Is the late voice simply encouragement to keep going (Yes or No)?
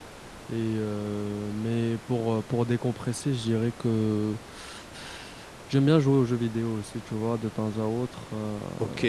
No